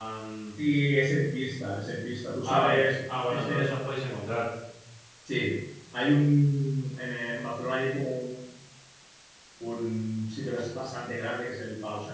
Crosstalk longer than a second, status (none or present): present